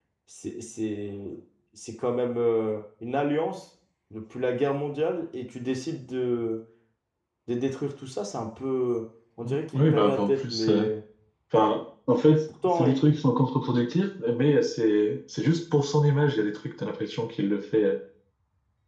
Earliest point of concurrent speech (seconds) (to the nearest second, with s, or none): 9 s